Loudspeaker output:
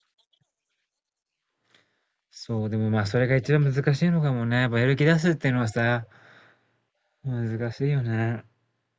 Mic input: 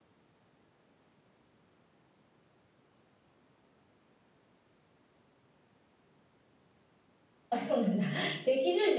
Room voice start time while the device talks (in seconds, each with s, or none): 7.5 s